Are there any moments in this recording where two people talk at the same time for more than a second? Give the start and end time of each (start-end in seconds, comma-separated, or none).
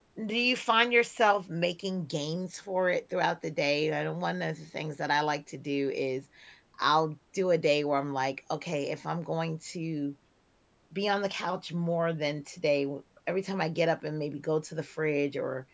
none